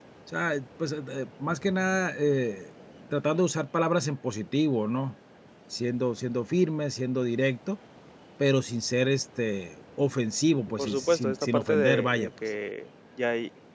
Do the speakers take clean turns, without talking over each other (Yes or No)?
No